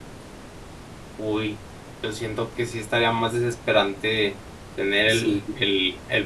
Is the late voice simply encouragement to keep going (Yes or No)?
Yes